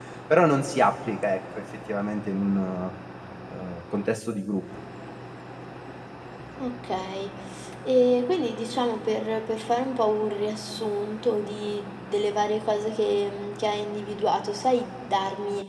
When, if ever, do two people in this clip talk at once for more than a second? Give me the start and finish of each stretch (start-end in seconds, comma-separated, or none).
none